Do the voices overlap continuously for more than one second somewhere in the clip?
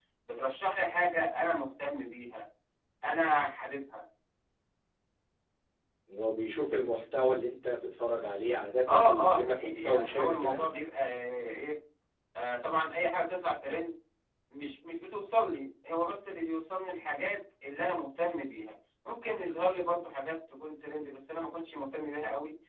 Yes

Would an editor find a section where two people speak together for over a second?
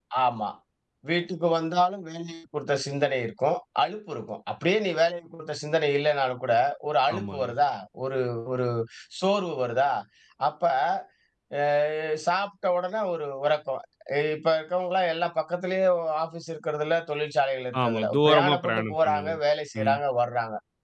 Yes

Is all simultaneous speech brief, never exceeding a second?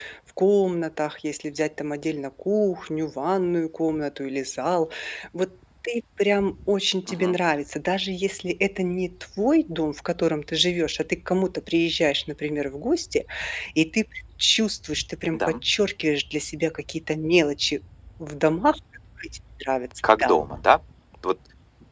Yes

